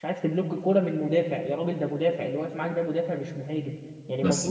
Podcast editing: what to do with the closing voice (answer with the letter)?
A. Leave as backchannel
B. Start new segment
A